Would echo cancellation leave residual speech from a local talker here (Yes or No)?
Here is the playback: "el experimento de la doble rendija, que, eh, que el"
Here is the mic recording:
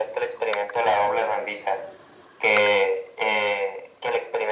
No